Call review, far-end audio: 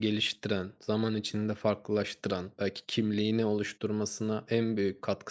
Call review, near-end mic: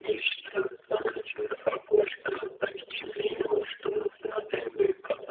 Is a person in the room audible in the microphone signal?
No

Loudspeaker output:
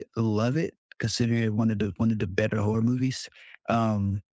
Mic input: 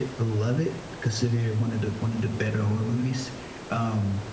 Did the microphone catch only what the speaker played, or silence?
Yes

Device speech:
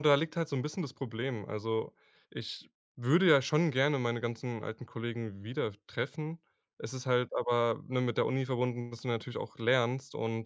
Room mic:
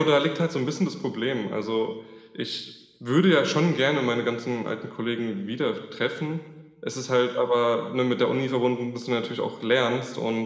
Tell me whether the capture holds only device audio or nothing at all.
Yes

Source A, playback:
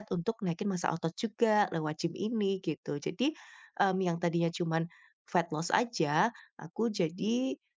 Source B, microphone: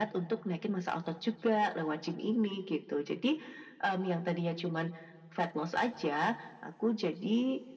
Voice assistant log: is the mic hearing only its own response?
Yes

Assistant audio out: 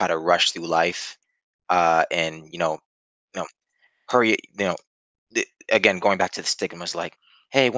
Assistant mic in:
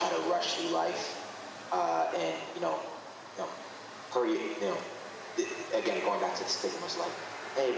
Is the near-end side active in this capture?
No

